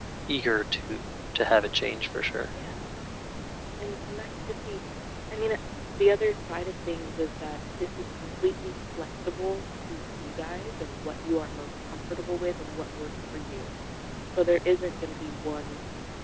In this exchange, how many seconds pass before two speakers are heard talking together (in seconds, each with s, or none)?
none